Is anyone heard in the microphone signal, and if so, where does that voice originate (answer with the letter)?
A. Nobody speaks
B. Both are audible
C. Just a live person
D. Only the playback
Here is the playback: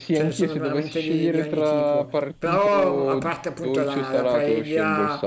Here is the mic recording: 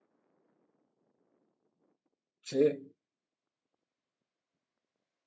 C